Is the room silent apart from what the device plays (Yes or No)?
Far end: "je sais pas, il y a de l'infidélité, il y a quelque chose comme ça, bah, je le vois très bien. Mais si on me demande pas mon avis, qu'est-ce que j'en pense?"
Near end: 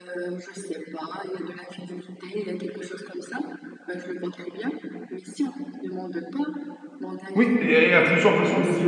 No